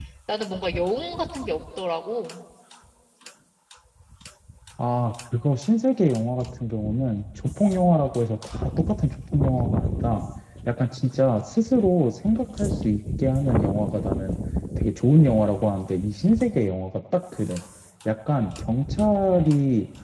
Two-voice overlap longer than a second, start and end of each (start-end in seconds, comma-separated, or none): none